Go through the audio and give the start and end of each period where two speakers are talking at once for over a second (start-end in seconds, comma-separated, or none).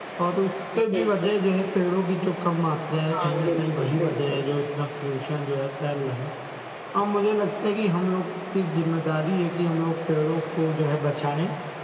3.1-4.4